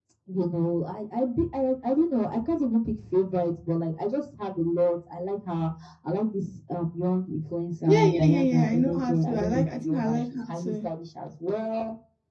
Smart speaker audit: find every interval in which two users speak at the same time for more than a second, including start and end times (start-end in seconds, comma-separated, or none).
7.9-10.7